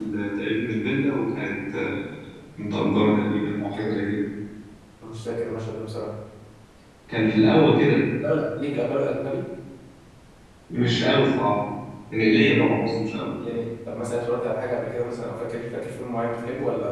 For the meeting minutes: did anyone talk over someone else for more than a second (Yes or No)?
No